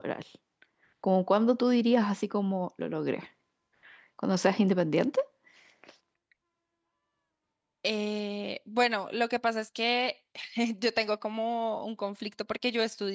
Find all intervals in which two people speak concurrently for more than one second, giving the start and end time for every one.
none

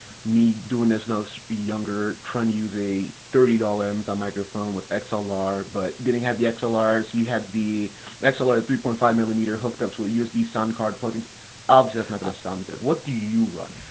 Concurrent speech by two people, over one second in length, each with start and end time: none

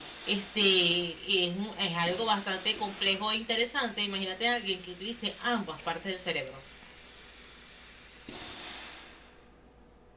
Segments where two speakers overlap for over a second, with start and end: none

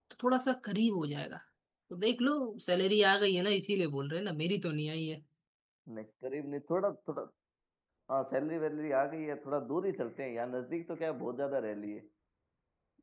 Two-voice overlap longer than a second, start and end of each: none

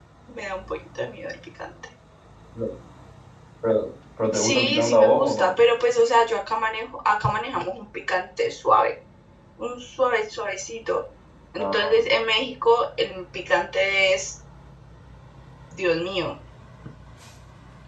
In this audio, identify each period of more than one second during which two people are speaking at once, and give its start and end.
4.3-5.5

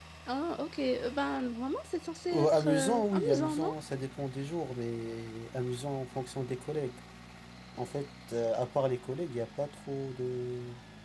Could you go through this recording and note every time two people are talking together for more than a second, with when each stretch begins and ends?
2.3-3.7

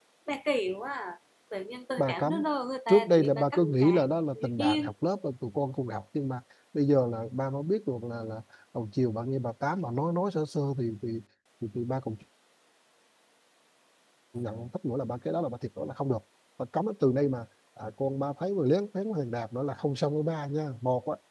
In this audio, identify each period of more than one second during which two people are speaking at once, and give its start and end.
2.9-4.9

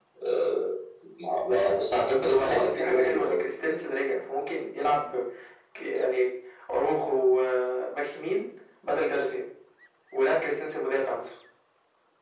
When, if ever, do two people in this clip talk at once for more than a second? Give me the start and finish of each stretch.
2.2-3.4

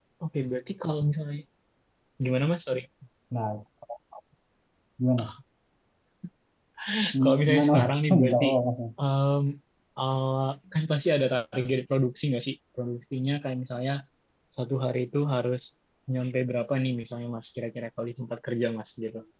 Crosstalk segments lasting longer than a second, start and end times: 7.2-8.5

